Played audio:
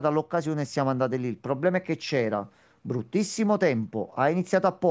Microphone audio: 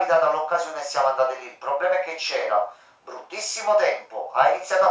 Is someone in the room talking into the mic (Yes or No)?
No